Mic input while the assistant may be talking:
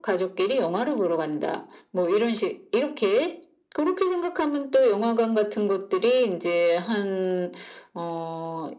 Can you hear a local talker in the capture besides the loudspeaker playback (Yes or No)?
No